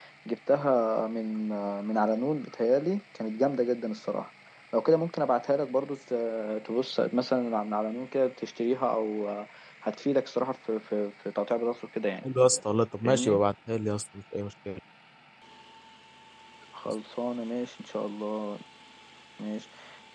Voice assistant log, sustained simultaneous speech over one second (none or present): none